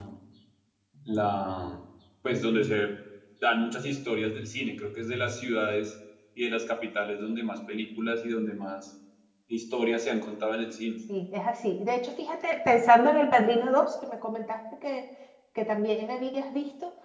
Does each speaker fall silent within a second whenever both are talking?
Yes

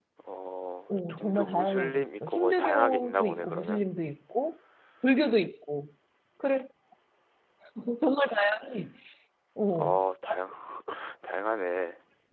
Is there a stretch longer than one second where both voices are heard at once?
Yes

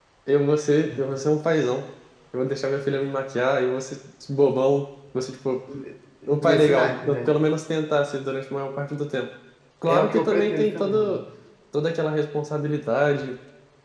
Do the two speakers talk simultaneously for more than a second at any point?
Yes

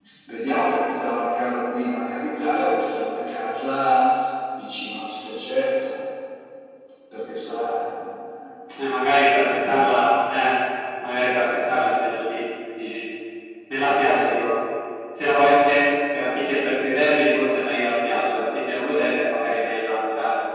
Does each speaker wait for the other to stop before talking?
Yes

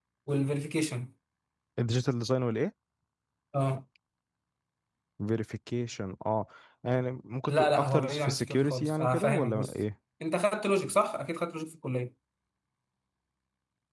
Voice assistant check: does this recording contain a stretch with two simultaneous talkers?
Yes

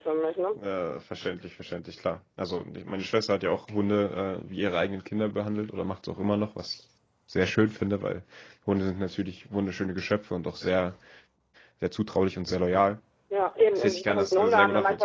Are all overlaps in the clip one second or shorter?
No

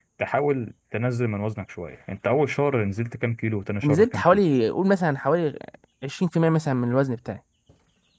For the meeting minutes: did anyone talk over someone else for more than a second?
No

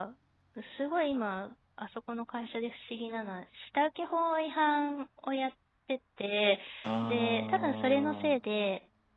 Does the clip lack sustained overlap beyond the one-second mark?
No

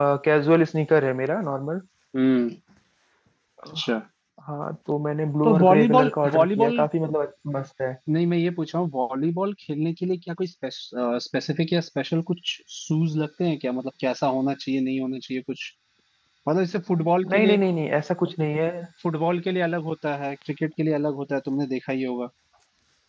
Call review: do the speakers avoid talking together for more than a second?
No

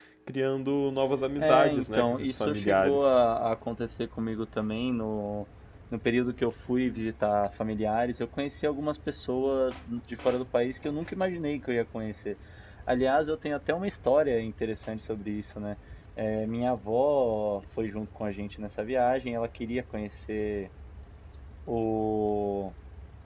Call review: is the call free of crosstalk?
No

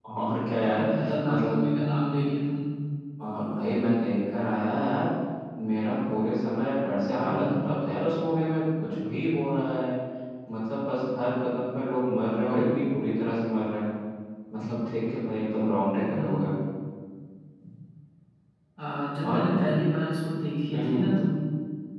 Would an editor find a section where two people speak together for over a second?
No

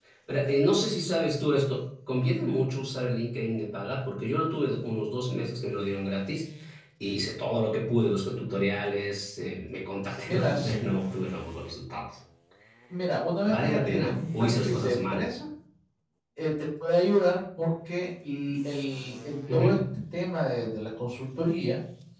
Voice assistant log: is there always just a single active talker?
No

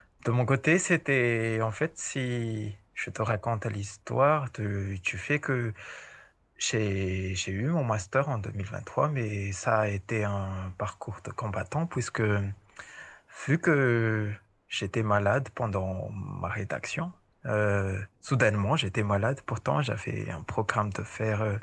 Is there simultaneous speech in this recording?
No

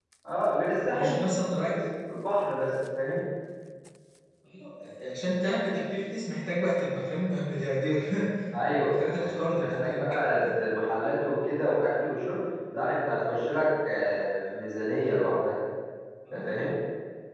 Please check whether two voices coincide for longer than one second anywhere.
Yes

